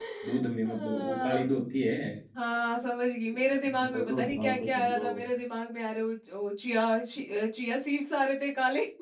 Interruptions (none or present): present